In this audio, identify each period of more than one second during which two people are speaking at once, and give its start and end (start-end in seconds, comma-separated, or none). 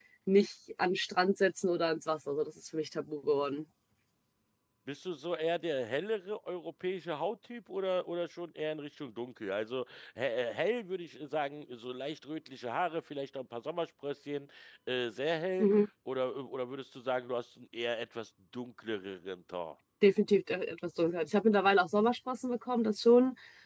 none